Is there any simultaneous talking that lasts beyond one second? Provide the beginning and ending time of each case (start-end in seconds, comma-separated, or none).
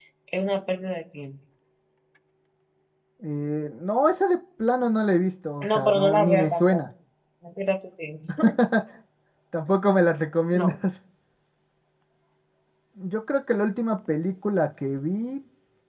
5.6-6.8